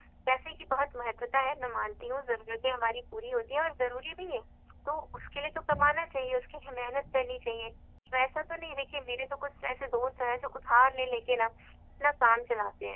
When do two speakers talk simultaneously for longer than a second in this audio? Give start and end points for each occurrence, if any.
none

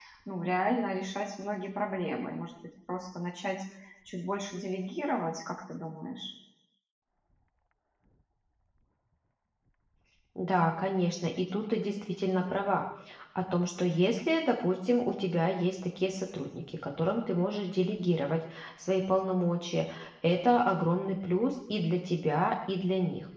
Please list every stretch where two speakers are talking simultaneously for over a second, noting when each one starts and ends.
none

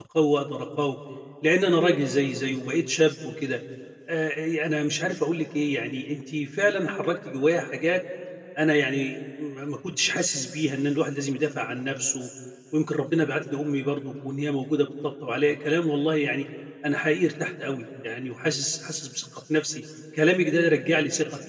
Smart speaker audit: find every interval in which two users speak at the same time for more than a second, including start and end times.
none

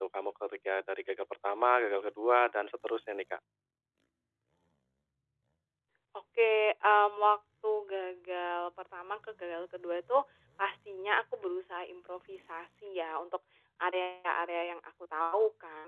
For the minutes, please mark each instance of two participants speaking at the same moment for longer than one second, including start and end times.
none

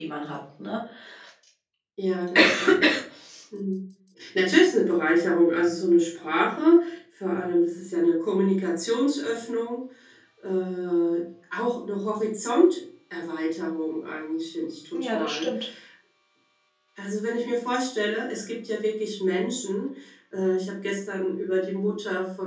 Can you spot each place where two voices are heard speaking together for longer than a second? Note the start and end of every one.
none

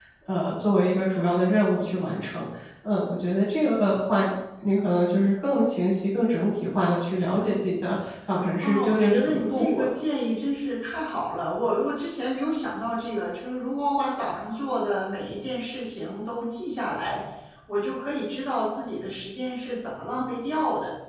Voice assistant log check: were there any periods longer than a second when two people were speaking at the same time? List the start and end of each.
8.6-10.0

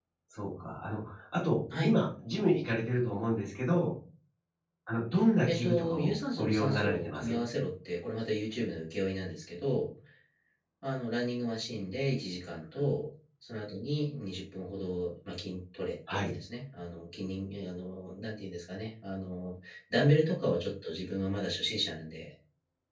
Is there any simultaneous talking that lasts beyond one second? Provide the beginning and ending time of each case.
5.5-7.4

